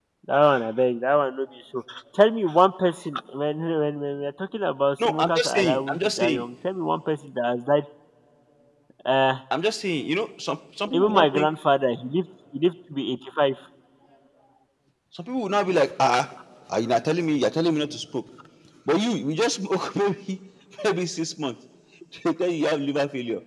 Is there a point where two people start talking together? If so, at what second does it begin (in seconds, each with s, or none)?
5.1 s